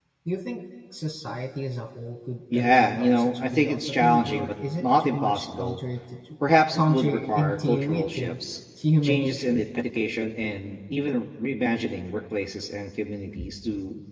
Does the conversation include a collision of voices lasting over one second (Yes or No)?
Yes